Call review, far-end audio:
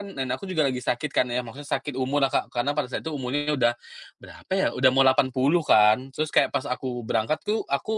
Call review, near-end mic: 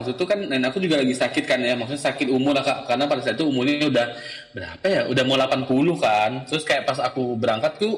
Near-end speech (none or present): none